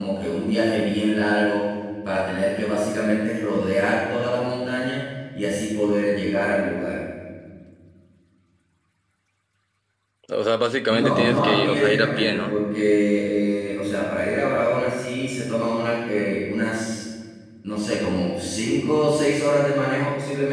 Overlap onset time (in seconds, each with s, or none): 10.9 s